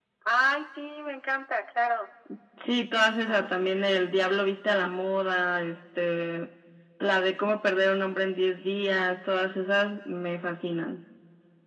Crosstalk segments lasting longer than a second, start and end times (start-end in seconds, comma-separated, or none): none